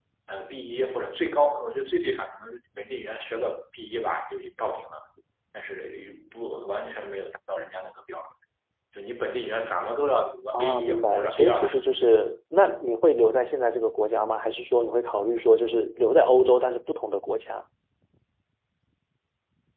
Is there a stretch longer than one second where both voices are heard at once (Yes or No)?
Yes